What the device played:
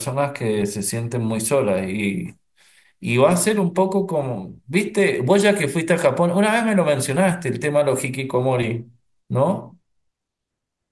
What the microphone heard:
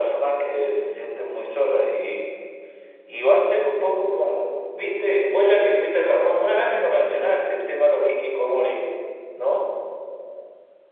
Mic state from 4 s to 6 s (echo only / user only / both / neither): echo only